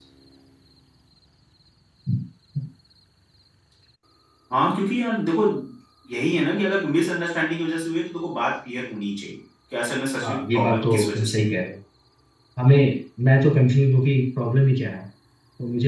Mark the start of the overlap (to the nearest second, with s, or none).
10 s